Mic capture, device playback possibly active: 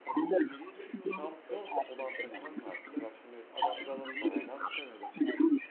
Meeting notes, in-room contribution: present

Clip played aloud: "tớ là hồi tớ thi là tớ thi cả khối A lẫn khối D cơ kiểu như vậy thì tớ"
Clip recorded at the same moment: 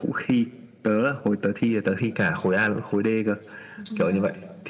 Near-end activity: present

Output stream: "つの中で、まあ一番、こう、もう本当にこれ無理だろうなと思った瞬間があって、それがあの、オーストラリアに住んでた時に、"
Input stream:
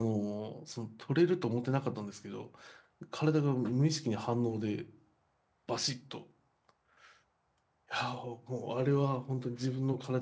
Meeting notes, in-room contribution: present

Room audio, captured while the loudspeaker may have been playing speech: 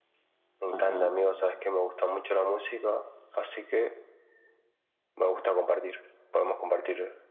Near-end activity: present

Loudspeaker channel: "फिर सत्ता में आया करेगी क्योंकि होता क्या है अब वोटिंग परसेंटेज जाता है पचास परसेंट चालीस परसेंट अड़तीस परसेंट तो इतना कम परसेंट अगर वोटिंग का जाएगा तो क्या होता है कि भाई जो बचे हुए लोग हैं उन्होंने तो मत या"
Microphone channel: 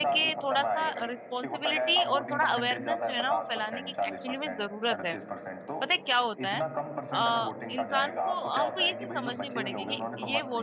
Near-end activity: present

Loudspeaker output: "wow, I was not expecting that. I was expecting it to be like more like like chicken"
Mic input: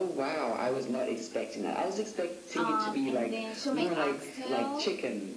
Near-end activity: present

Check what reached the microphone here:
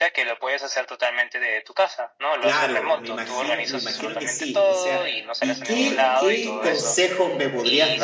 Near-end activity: present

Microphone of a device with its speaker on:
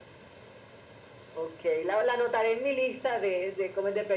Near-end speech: none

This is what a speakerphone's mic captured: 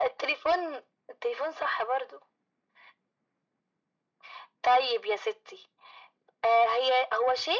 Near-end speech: none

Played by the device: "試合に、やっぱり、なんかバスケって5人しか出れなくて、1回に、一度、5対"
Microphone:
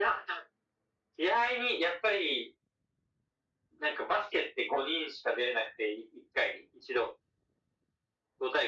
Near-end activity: none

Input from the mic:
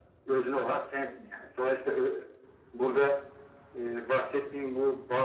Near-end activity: none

